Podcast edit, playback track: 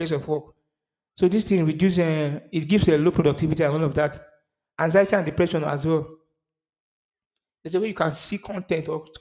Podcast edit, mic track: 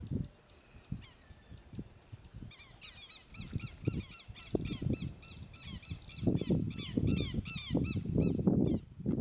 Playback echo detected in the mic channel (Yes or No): No